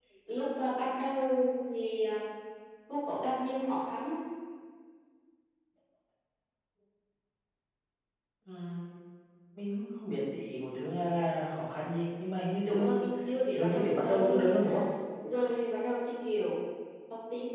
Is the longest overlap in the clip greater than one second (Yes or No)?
Yes